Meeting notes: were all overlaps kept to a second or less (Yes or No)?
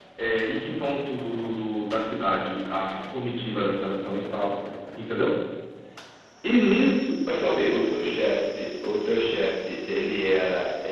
Yes